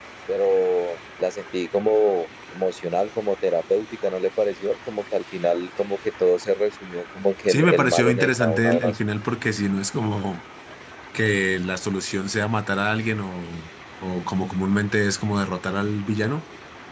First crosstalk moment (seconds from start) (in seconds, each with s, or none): 7.5 s